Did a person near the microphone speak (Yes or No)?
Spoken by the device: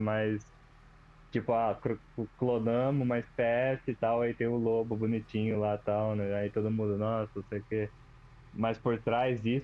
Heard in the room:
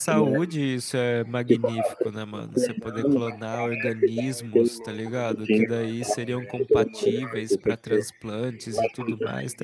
Yes